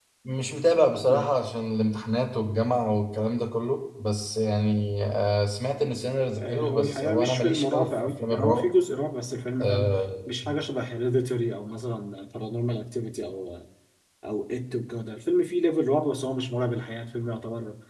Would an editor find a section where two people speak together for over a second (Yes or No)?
Yes